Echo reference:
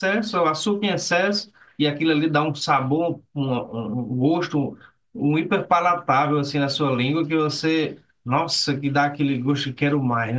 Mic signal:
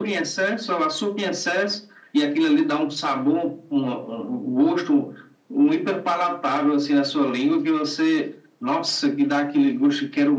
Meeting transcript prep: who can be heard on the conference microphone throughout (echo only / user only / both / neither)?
echo only